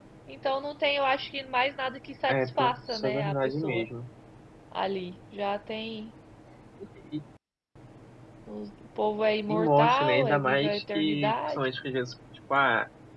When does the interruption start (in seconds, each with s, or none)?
2.3 s